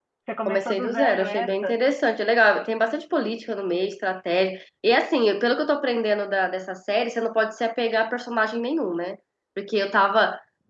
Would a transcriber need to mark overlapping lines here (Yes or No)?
Yes